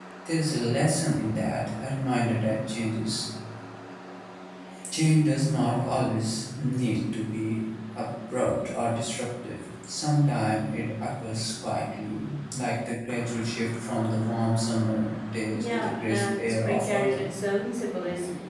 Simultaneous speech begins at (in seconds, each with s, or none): 15.5 s